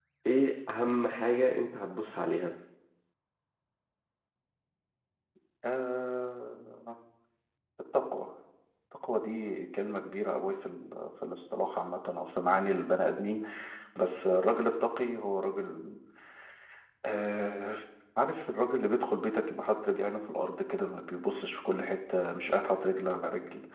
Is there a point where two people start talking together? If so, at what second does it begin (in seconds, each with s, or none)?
none